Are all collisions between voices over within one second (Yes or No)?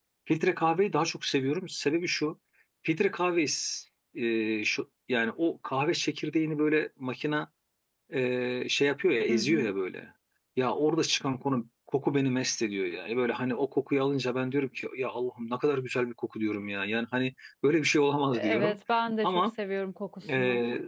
Yes